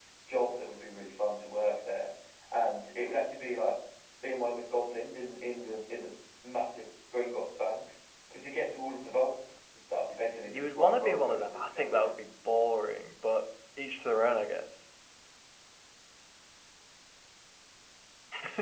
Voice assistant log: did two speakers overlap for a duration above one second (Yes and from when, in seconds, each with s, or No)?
Yes, from 10.5 s